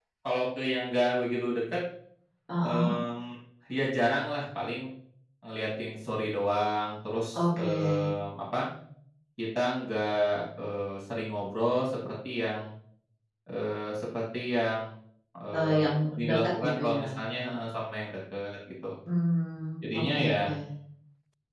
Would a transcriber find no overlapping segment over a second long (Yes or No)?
No